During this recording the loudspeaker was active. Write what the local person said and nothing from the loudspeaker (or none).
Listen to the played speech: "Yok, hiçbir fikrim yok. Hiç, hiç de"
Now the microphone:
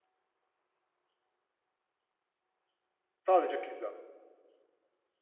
Sadece pizza.